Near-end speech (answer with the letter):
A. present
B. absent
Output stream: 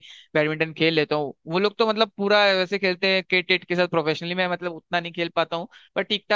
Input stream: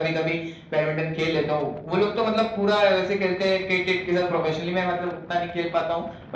B